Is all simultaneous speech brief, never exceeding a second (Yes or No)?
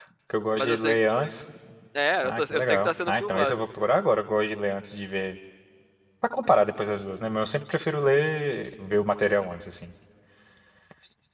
No